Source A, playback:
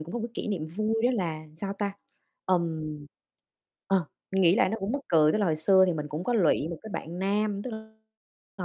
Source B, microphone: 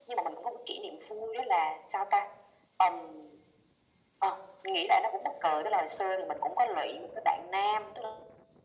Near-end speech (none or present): none